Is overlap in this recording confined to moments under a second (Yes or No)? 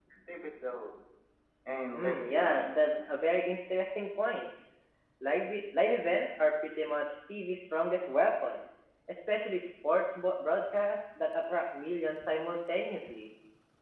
No